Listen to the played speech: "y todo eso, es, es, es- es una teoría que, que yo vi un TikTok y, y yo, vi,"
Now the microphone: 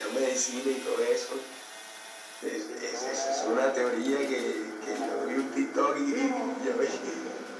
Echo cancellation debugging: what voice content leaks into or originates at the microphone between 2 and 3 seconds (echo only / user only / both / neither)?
both